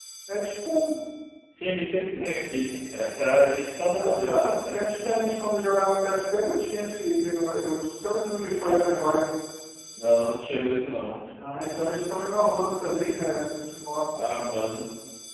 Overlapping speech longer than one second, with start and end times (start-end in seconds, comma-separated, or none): 3.9-5.2